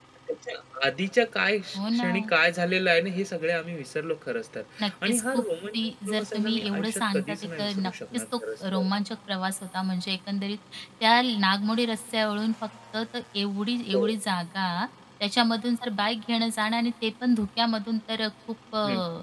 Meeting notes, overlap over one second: present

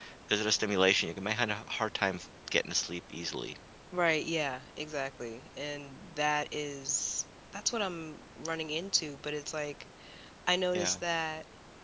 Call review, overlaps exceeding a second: none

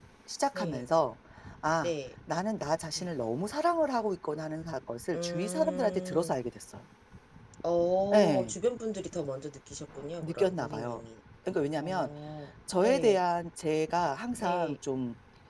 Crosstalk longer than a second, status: present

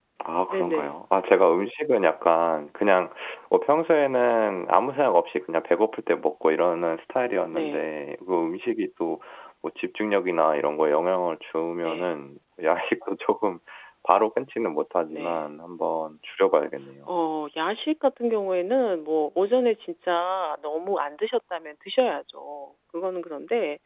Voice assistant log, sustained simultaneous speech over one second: none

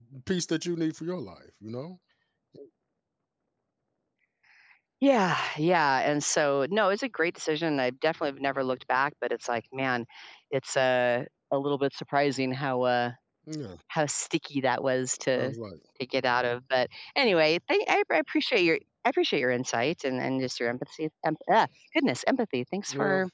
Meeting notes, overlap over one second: none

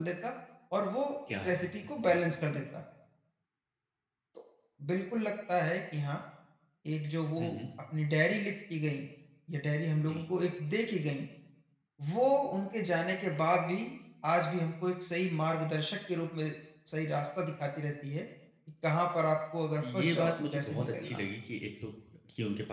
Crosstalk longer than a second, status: present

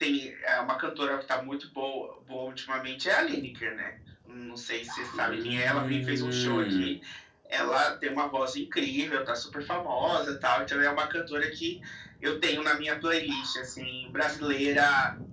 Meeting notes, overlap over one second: present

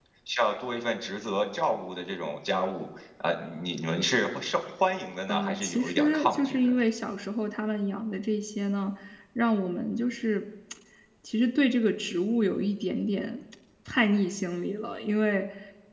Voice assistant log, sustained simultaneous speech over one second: present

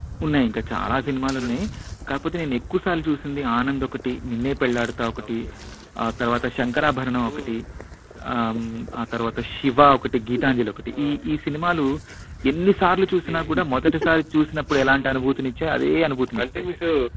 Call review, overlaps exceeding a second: none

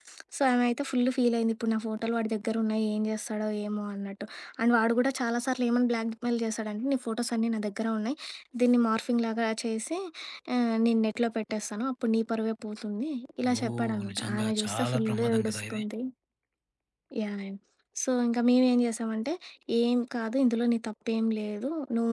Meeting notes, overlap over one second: present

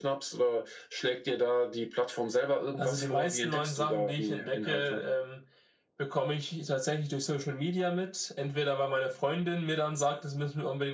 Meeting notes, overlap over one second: present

